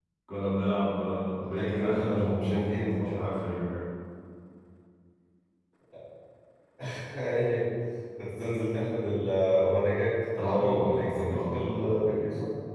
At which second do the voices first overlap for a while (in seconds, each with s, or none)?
1.5 s